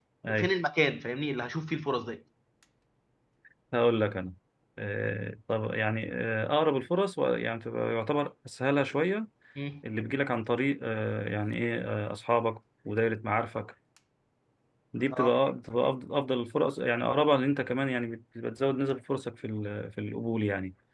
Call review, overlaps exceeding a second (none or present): none